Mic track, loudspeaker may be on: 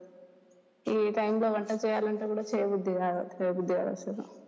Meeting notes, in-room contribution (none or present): none